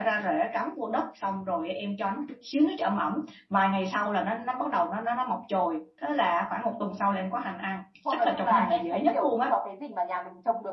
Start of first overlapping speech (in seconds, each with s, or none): 8.1 s